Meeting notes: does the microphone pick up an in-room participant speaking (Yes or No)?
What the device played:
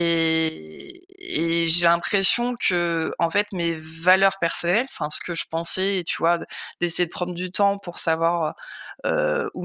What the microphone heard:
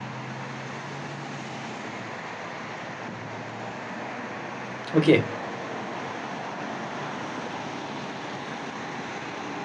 Yes